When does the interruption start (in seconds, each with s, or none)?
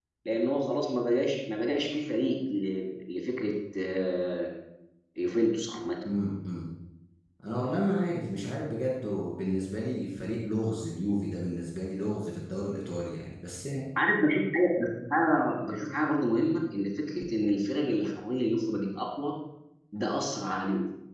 none